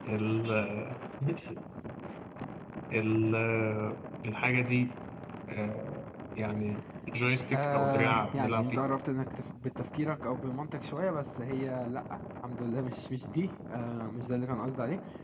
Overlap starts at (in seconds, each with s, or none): 7.5 s